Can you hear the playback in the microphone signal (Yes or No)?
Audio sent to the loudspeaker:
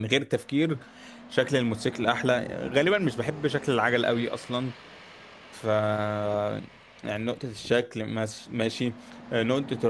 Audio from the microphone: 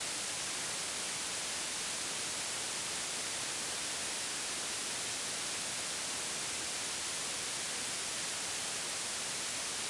No